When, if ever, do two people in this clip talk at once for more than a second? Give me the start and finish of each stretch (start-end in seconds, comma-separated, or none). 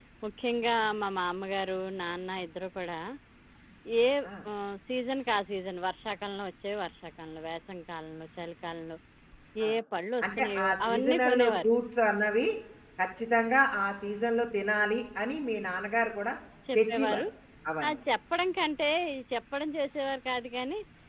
10.4-11.7